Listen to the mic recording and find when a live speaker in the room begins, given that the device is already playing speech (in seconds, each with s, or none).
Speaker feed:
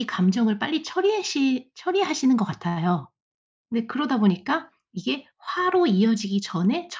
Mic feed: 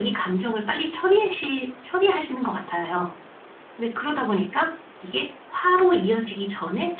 none